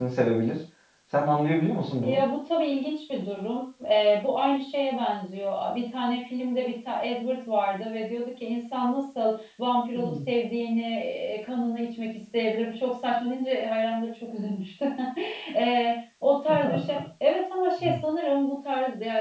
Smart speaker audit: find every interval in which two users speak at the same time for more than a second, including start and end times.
none

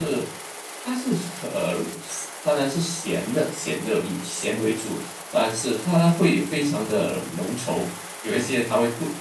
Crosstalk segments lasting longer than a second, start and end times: none

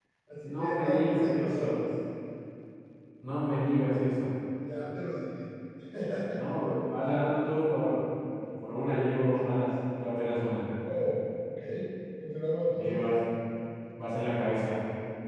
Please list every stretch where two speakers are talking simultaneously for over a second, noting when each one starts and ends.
0.6-1.9

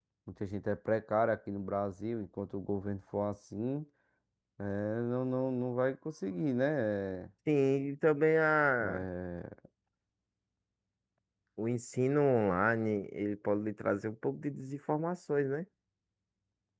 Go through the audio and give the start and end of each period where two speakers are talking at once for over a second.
none

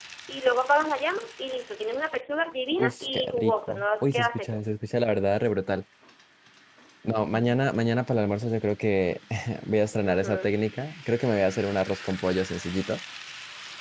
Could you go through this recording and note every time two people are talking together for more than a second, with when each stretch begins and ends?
2.8-4.6

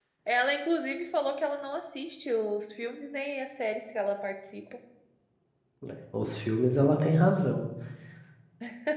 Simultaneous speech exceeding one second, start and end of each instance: none

